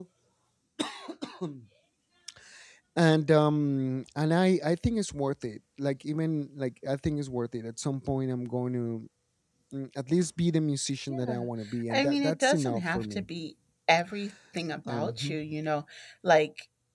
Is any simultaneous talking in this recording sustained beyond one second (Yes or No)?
Yes